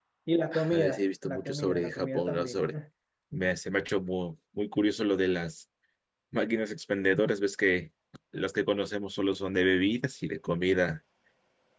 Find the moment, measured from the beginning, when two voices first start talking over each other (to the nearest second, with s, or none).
1 s